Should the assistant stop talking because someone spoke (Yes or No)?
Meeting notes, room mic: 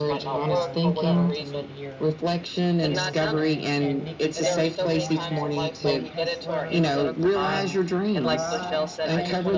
Yes